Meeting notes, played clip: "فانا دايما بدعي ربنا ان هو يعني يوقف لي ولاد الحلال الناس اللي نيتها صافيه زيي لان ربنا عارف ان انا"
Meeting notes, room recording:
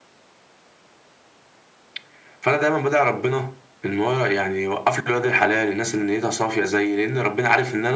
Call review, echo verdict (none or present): present